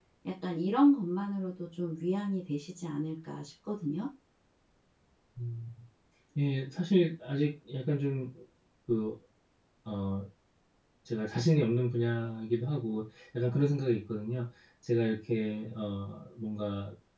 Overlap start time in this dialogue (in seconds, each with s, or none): none